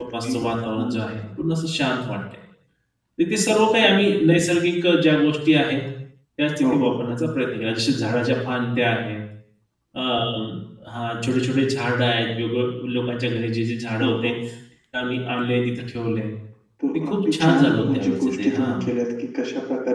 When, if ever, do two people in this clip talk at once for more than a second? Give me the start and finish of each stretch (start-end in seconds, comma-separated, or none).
16.9-18.8